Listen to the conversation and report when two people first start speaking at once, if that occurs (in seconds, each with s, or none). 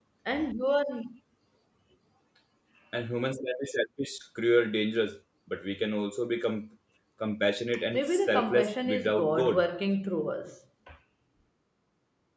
7.9 s